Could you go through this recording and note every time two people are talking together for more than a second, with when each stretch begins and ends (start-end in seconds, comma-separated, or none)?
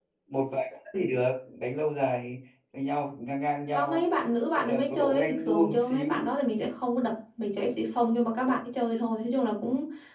4.5-6.3